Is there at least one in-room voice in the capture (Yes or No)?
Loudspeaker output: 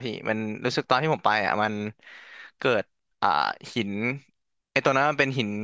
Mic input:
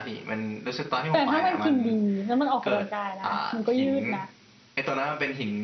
Yes